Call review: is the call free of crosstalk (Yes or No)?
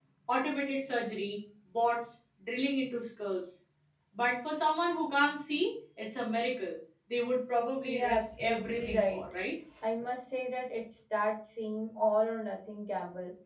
No